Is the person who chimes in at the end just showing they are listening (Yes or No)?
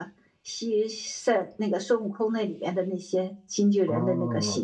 No